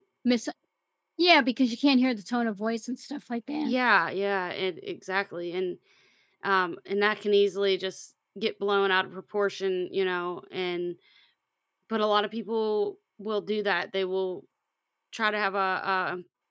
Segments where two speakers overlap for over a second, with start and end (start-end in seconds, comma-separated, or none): none